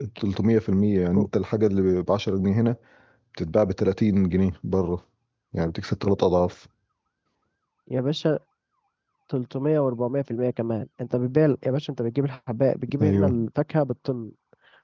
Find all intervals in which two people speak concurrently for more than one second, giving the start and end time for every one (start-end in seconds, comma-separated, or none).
none